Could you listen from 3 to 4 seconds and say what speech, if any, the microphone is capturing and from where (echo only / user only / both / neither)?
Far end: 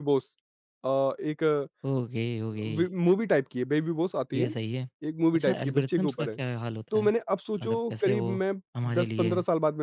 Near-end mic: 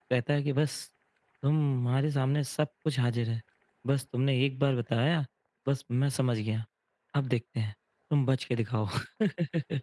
user only